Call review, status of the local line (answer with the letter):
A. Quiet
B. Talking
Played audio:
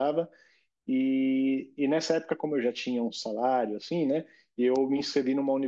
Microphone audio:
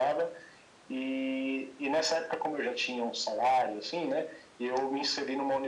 A